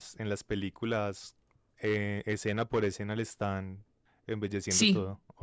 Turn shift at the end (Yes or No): Yes